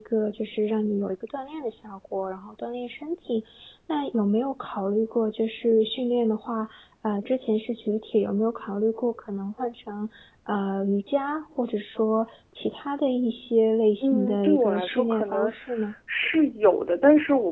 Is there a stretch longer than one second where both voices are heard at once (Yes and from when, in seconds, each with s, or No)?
Yes, from 14.0 s